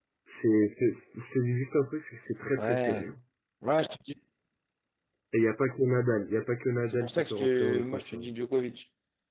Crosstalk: present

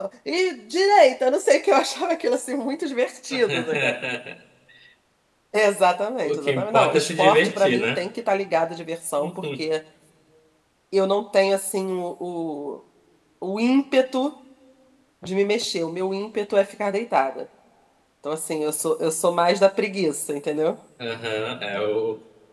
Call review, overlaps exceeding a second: present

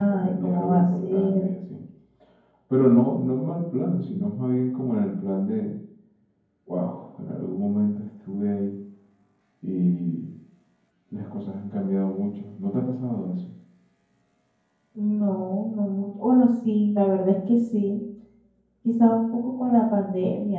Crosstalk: present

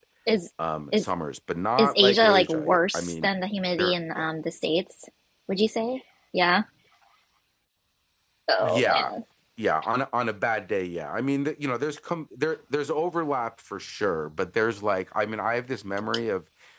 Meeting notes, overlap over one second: present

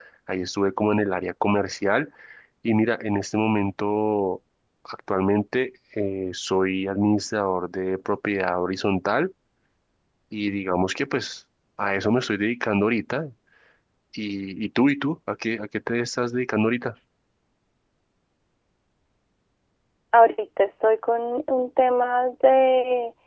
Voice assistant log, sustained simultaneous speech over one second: none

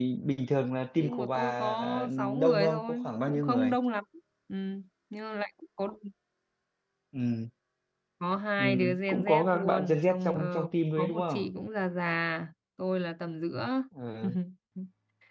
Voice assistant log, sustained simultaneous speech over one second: present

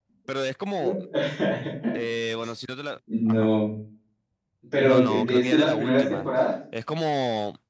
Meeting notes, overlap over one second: present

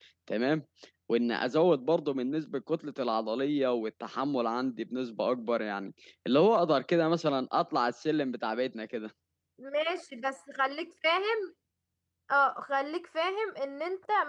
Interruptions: none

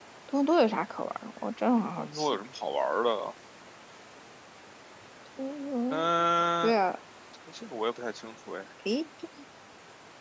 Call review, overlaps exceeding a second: none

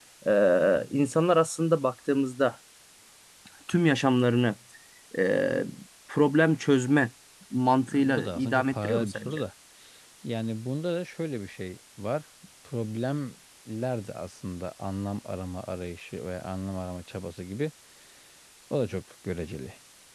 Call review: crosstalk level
present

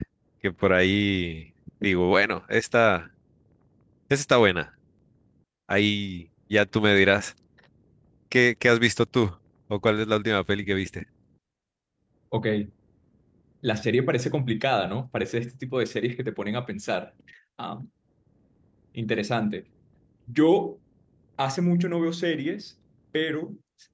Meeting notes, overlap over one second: none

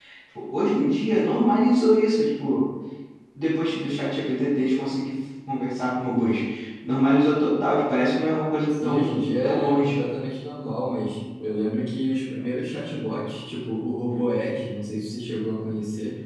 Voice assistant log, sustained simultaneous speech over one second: present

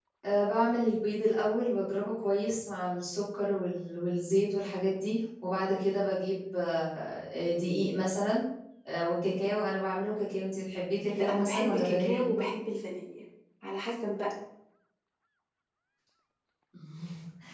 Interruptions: present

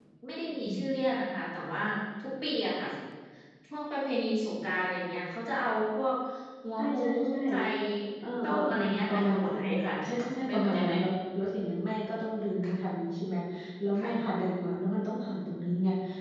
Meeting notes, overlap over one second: present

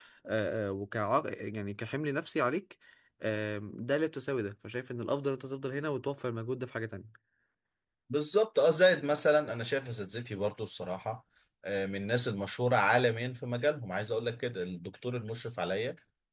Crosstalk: none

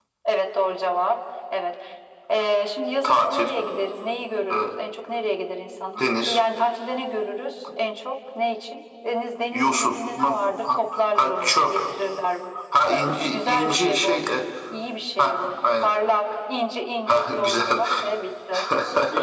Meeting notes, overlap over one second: present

